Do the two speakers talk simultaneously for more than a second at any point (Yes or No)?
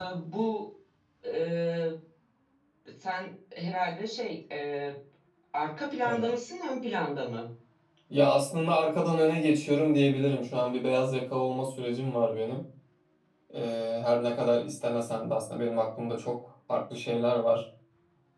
No